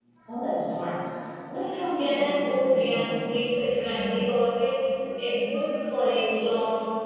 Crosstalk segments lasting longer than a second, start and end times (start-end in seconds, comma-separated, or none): 2.0-3.3